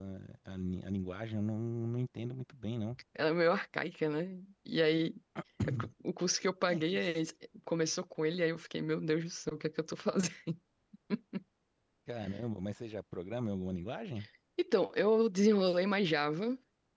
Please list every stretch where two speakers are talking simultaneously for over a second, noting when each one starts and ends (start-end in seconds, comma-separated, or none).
none